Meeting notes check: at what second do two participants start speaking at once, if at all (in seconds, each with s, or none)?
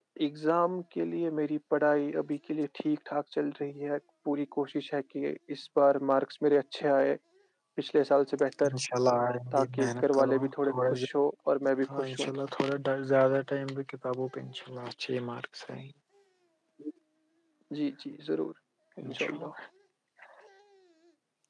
9.5 s